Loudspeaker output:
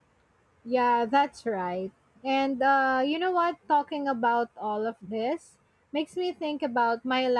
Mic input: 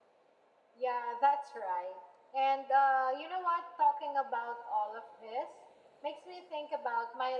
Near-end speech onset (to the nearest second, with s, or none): none